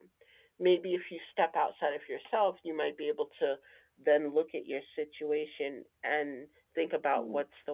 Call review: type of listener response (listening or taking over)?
listening